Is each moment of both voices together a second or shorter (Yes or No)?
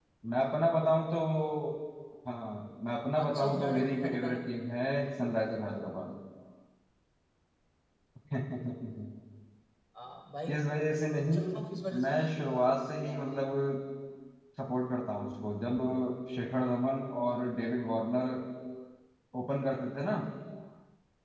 No